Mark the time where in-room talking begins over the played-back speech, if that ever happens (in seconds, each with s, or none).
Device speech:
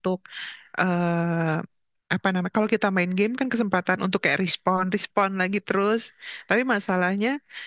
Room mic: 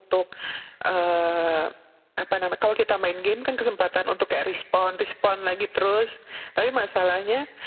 none